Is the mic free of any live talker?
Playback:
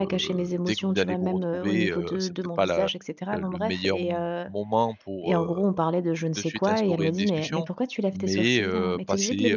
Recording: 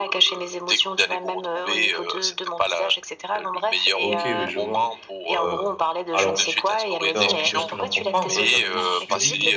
No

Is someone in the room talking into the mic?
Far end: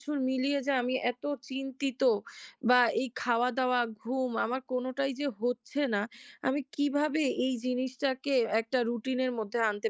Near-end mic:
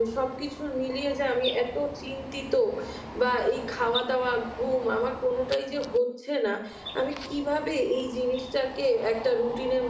No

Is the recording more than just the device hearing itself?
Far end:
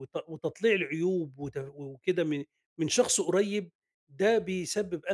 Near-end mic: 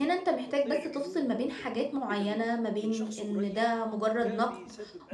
Yes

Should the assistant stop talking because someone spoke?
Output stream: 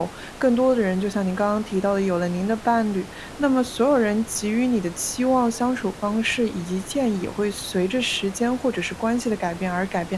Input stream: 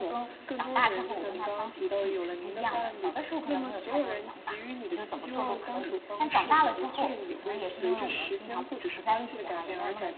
Yes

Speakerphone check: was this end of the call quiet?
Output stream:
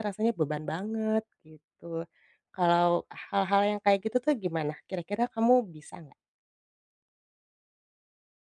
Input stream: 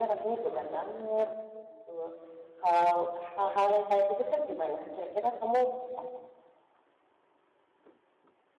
Yes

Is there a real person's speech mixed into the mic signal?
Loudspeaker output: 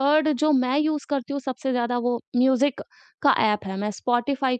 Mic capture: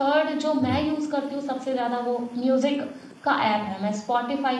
Yes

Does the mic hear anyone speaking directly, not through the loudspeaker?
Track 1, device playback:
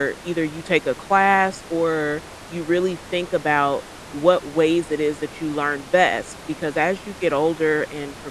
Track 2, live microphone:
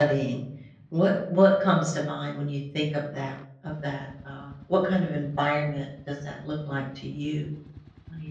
Yes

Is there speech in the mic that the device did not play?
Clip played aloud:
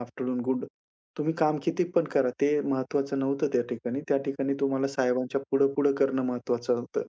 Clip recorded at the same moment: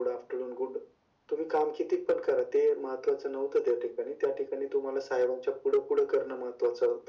No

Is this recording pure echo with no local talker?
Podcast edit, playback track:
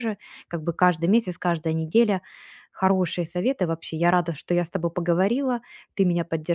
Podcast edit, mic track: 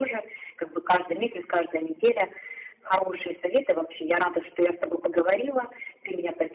Yes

